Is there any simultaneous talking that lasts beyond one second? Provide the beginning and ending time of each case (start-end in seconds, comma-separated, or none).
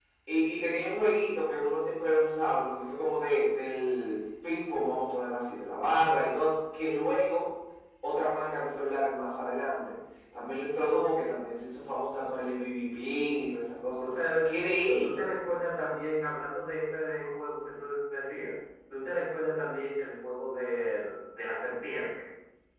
none